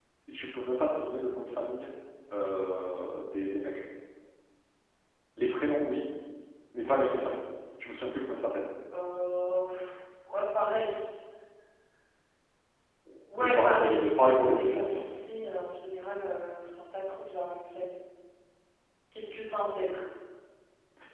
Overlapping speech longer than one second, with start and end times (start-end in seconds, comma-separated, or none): 13.4-15.0